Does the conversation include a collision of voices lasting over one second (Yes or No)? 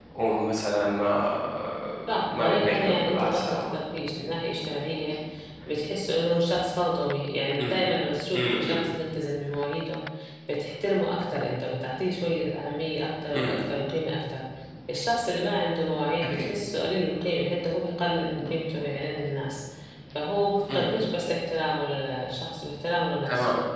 Yes